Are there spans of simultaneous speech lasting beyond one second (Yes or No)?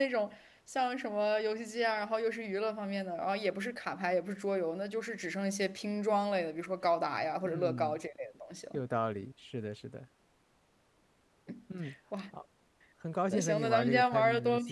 Yes